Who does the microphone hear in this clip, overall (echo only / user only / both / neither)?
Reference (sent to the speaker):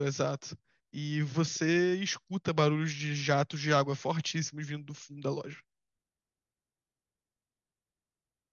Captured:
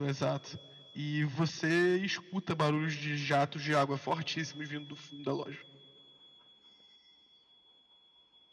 echo only